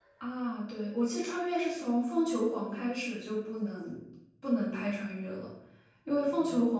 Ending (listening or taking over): listening